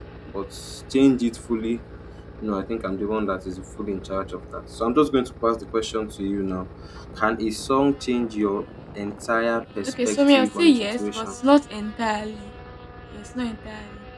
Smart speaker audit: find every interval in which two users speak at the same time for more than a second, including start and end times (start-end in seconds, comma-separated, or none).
10.0-11.3